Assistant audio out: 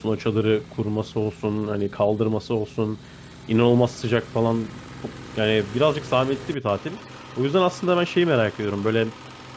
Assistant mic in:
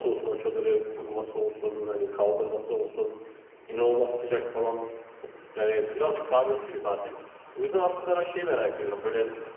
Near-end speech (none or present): none